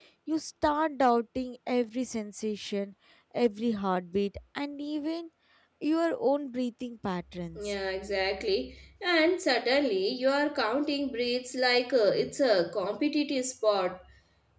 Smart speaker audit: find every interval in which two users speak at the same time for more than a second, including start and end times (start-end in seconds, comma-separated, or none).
none